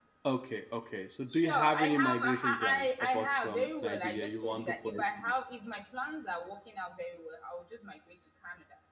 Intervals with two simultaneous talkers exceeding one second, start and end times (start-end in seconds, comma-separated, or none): 1.3-5.3